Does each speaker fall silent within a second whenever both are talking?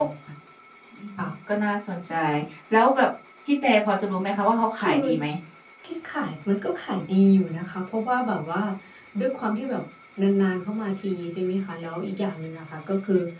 Yes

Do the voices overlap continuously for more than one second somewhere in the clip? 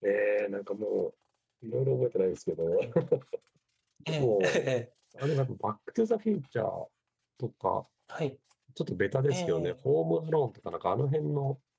No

